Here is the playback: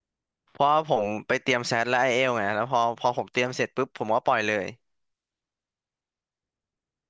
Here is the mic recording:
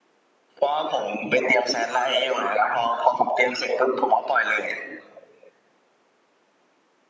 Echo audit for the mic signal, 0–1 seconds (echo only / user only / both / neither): echo only